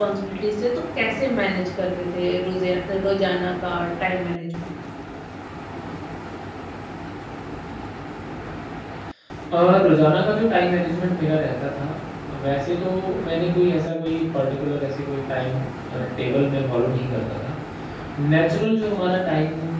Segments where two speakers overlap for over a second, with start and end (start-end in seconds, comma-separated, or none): none